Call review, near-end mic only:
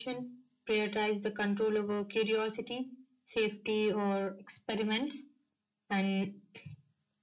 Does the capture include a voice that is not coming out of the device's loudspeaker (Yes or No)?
No